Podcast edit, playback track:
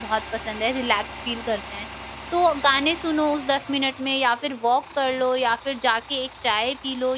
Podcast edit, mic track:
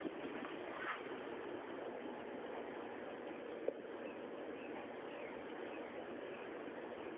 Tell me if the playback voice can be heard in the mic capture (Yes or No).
No